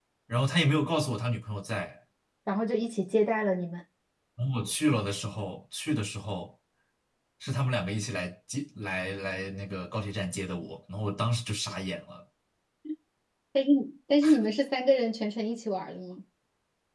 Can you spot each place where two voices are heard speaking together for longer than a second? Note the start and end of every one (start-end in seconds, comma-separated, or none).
none